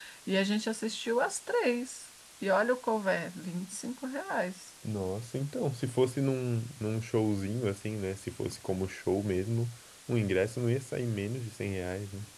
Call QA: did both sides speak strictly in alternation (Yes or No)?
Yes